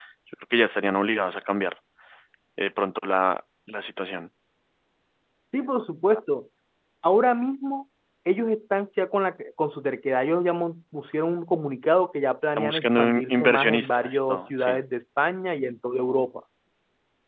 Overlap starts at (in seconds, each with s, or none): 12.6 s